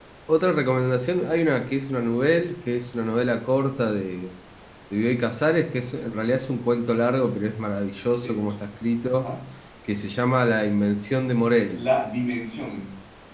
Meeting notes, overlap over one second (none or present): none